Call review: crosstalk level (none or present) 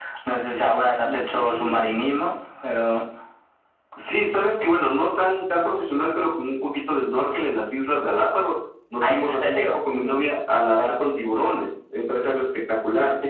present